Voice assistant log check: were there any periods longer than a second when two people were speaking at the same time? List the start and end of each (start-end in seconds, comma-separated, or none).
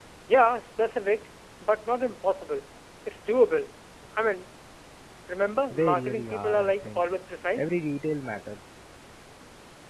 5.7-7.1